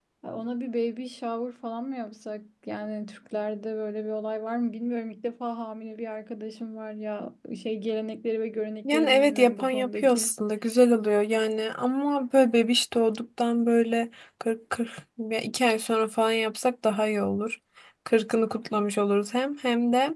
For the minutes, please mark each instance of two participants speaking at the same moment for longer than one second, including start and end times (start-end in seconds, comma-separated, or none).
8.8-10.3